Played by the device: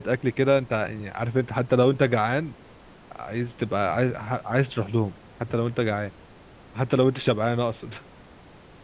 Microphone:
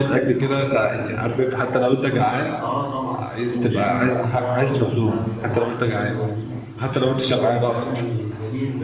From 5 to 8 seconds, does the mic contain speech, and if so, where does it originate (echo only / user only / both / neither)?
both